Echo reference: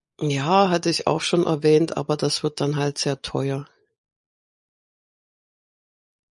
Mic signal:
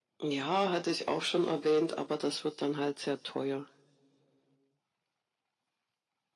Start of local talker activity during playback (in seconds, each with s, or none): none